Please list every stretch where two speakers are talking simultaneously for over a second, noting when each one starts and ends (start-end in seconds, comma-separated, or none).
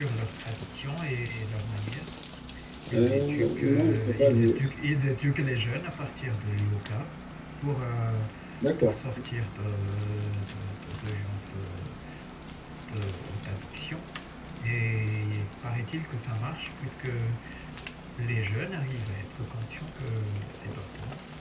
2.9-4.6